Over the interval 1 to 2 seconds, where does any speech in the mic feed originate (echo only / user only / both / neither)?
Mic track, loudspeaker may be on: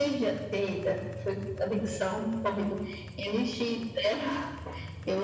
echo only